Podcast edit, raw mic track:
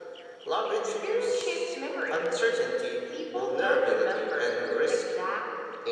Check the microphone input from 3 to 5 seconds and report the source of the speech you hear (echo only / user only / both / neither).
echo only